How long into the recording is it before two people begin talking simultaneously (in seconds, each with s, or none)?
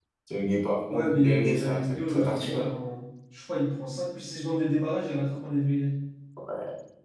0.9 s